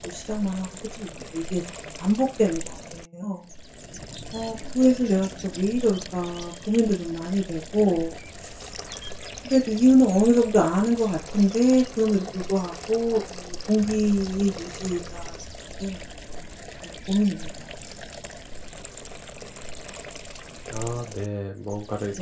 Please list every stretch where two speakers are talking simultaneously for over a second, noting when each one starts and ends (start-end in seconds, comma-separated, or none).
none